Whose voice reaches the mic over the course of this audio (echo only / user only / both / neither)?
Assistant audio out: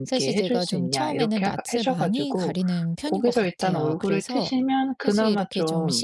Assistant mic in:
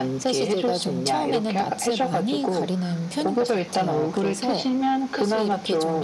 echo only